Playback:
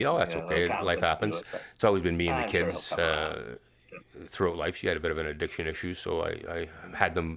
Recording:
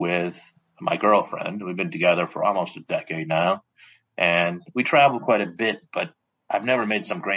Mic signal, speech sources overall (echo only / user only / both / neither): user only